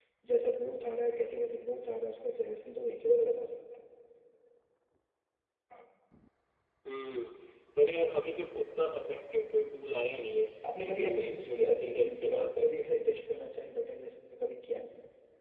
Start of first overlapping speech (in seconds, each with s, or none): 10.6 s